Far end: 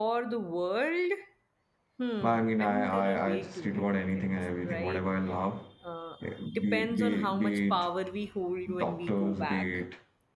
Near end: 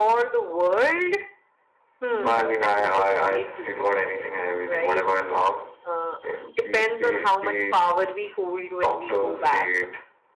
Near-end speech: present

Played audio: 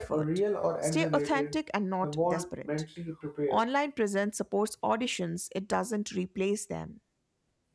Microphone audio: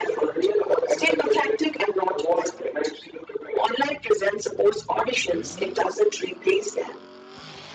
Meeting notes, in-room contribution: none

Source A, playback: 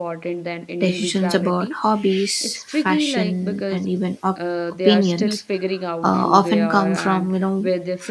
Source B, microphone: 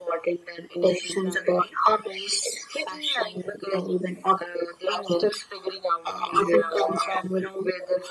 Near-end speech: none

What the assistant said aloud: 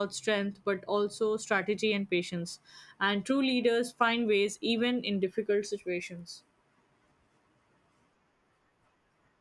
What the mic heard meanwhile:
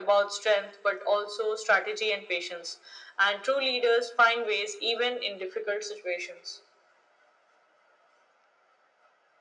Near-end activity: none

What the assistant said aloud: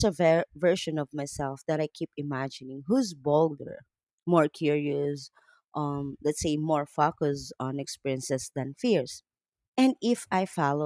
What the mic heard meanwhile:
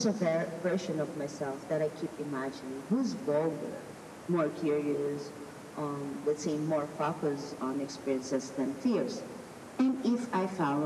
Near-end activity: none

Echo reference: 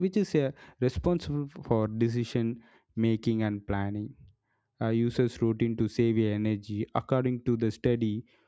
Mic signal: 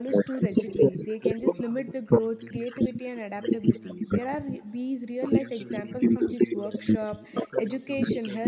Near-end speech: present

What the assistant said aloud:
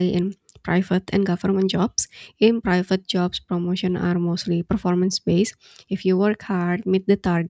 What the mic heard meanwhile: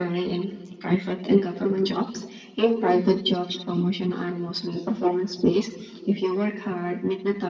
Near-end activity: none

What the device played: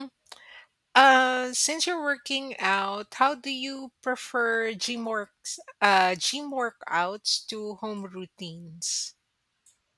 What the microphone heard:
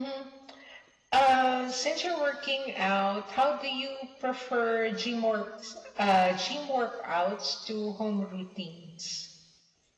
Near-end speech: none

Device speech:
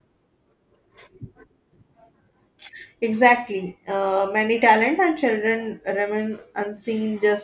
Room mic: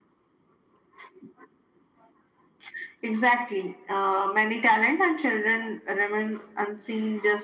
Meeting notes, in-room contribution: none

